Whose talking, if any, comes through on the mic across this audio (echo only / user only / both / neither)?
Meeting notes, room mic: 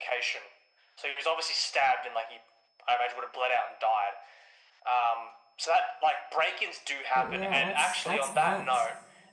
both